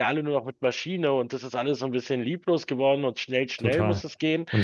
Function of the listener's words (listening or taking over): taking over